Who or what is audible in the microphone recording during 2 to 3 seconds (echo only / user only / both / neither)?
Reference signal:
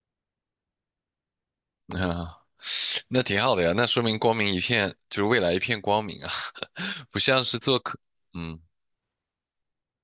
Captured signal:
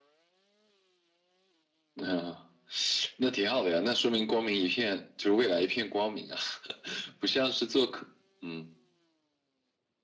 echo only